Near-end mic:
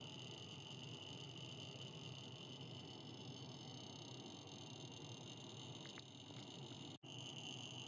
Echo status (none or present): none